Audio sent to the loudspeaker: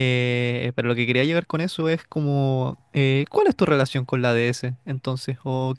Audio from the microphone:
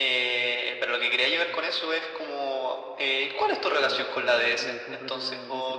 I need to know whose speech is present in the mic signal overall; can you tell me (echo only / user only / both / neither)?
both